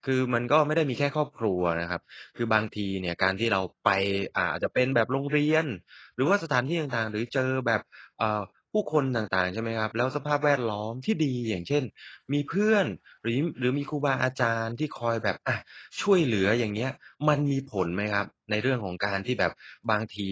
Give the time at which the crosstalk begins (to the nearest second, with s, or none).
none